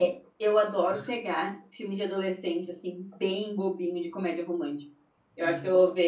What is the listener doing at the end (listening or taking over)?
listening